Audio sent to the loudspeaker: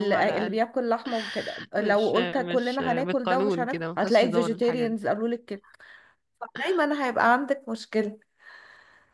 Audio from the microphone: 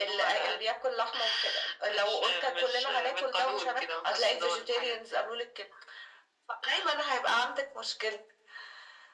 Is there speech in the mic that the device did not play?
No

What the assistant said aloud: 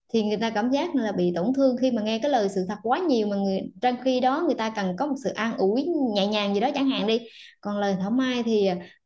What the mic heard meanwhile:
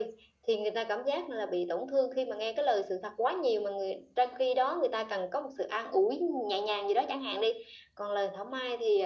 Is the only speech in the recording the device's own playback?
Yes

